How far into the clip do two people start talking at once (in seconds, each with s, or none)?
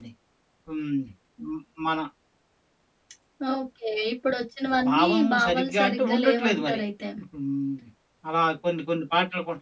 4.8 s